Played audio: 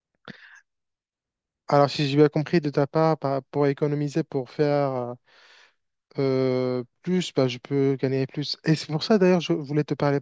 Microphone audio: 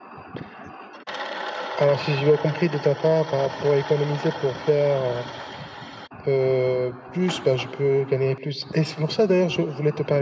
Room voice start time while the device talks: none

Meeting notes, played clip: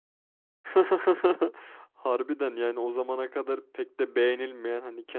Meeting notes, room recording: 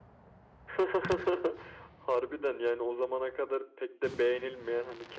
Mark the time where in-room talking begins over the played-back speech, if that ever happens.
none

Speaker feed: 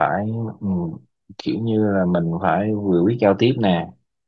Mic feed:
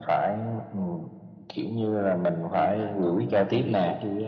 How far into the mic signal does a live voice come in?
2.5 s

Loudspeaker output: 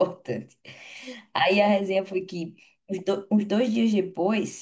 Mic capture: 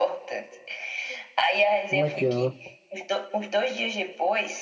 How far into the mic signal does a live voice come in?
1.8 s

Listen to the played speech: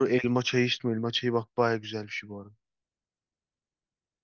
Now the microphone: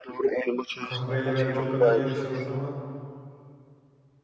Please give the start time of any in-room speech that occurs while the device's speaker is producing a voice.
0.8 s

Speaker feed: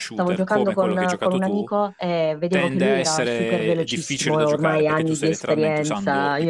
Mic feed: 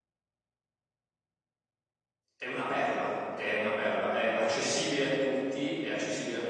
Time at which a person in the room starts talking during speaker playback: 2.4 s

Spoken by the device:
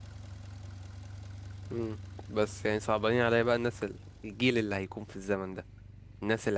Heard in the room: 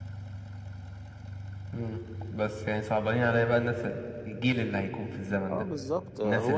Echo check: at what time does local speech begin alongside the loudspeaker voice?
5.5 s

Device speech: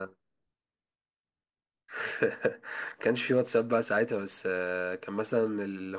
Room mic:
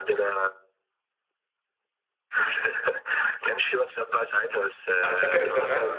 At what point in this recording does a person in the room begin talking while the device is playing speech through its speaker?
5.0 s

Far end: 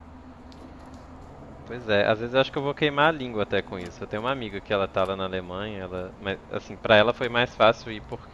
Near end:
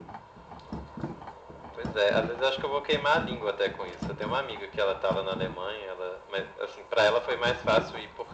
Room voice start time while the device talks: none

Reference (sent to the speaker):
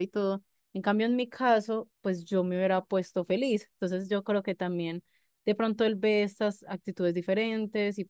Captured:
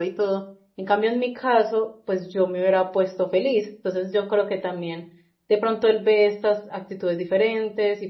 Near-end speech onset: none

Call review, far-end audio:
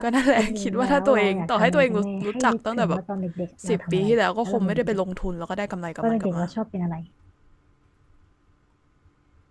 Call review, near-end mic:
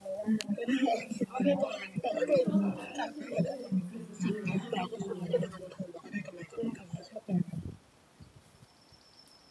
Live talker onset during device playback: 0.7 s

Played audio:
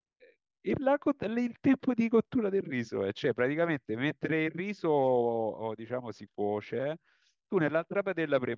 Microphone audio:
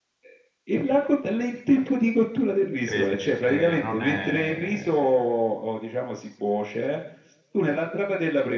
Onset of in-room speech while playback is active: 2.8 s

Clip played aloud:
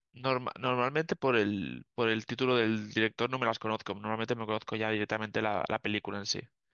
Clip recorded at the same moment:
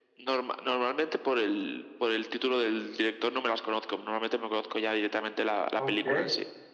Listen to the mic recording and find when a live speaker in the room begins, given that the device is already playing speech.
5.7 s

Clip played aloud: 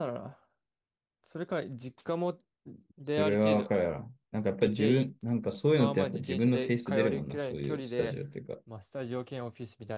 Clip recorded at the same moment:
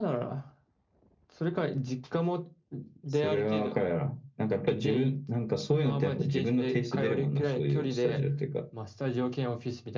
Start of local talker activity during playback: none

